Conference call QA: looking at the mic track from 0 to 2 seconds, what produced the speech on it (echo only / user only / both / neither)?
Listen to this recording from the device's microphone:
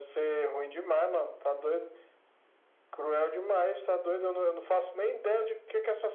echo only